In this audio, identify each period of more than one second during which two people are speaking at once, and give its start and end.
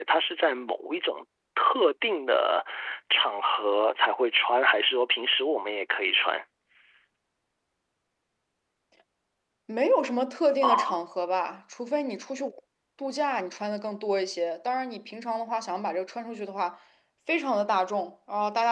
none

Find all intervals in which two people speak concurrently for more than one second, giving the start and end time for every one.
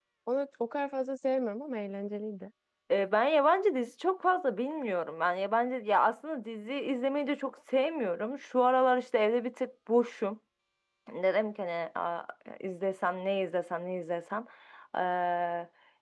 none

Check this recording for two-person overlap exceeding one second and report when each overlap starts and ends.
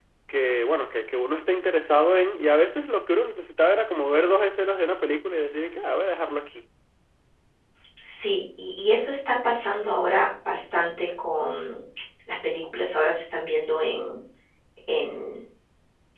none

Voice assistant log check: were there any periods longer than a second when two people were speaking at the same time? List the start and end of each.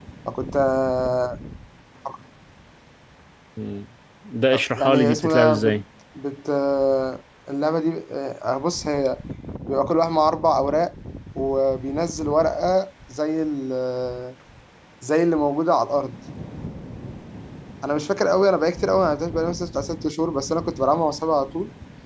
4.5-5.8

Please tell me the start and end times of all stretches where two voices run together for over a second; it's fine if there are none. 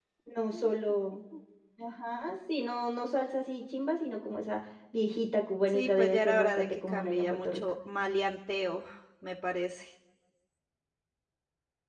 5.7-7.6

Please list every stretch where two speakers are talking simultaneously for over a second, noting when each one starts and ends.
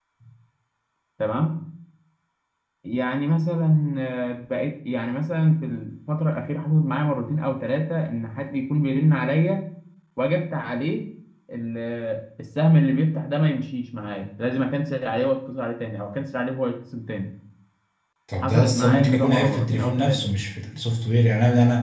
18.4-20.3

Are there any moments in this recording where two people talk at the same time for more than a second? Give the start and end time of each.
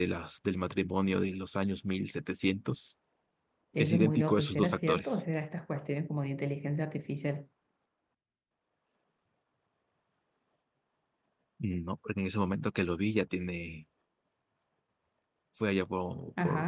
3.8-5.2

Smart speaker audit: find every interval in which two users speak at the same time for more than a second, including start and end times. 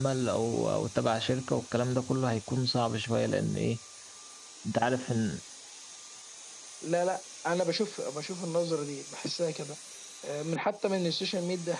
none

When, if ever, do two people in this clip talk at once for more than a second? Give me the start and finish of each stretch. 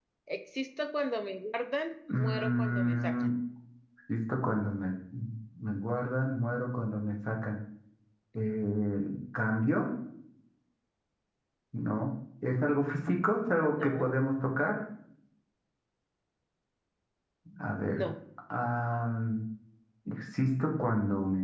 2.1-3.3

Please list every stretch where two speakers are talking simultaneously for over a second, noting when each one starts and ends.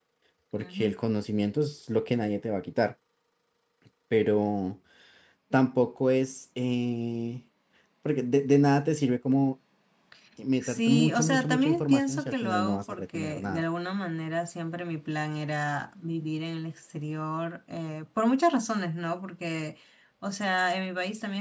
10.6-13.6

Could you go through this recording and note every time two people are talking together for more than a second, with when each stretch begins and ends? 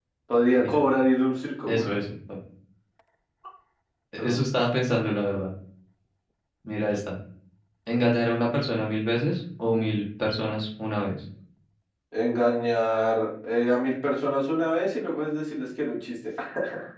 none

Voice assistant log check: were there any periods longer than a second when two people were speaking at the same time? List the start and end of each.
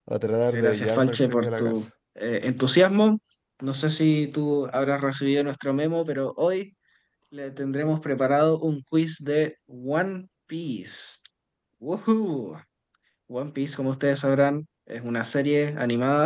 0.5-1.9

